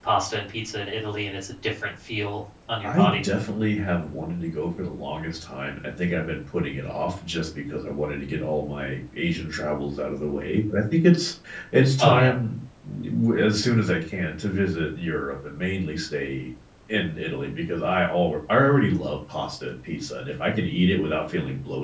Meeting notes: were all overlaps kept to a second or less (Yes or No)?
Yes